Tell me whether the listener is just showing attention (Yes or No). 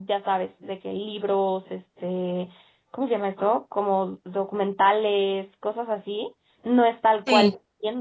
Yes